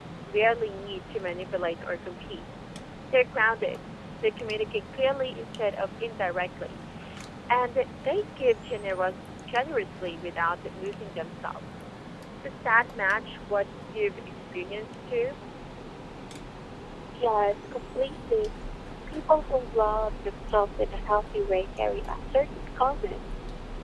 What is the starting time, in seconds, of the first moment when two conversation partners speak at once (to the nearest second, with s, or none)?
none